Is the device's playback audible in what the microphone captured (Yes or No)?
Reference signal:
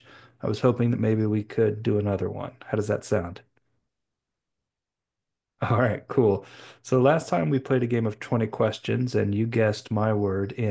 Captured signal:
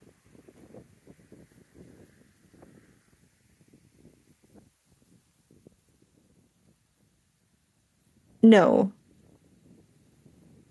No